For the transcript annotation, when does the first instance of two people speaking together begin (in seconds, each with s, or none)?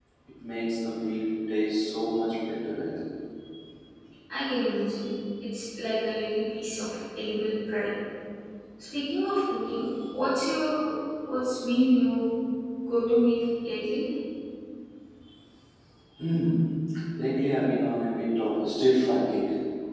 none